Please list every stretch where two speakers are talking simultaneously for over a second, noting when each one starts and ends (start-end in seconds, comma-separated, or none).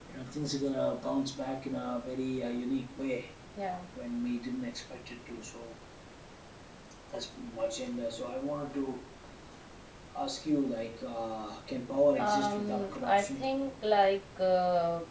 12.2-13.4